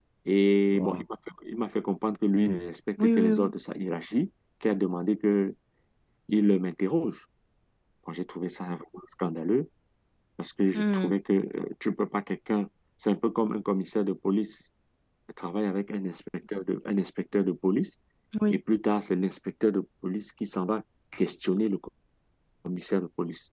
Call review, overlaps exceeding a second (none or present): none